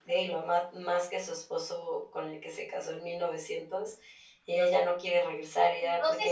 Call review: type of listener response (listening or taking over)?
taking over